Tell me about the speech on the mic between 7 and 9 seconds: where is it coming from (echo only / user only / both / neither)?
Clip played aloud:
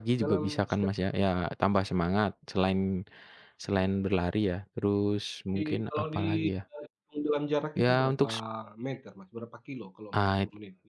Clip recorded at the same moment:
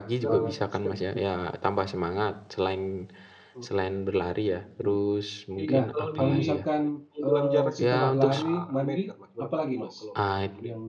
both